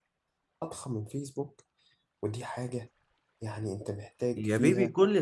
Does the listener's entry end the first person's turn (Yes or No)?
Yes